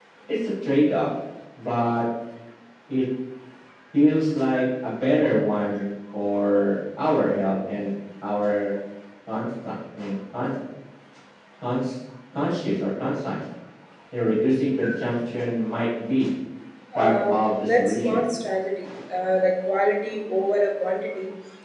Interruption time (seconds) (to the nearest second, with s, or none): 17 s